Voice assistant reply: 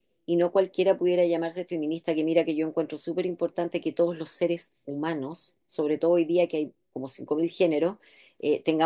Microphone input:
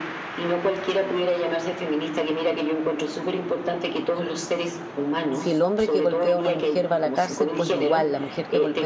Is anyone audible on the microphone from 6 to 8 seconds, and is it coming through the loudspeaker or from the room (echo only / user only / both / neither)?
both